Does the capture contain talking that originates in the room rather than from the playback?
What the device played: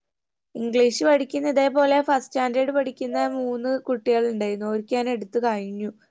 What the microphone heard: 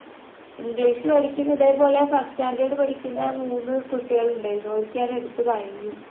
No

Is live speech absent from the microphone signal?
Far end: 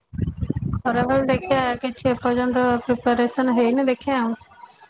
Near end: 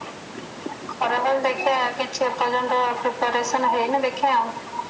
Yes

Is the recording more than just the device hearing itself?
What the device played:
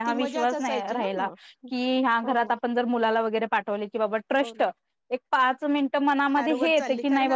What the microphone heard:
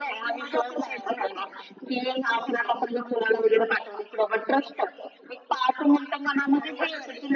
No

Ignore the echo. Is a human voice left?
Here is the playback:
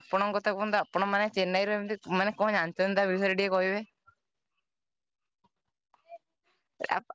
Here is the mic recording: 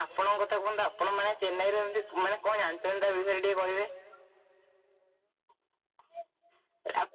No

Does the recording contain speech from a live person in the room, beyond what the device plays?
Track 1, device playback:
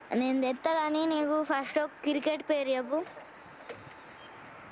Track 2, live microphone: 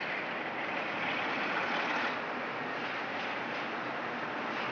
No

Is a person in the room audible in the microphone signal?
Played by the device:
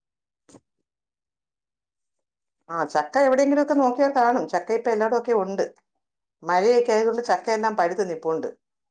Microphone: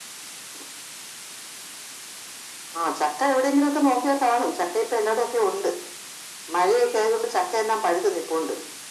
No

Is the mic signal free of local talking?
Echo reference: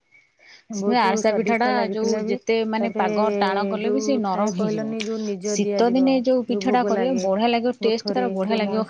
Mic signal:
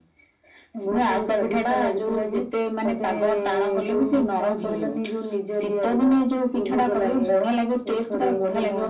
Yes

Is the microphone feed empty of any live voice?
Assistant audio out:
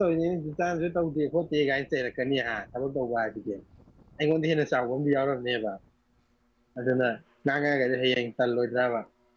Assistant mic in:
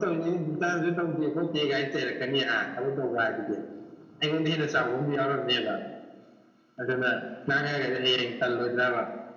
Yes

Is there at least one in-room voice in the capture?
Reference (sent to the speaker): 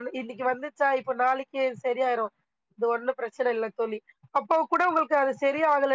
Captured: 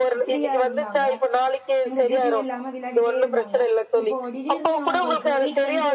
Yes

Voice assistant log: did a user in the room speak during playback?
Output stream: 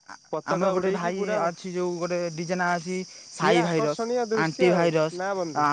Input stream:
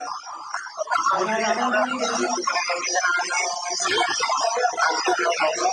Yes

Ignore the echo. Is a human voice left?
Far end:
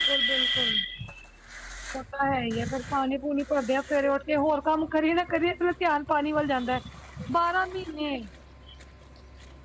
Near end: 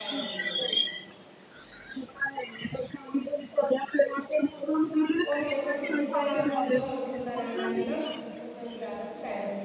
Yes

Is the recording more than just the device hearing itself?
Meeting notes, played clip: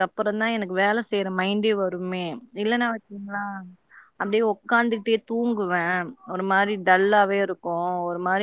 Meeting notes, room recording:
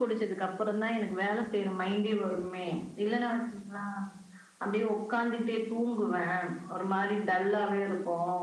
No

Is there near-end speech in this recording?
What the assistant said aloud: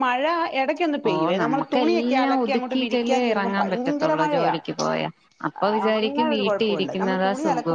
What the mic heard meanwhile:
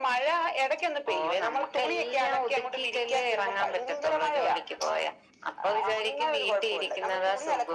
No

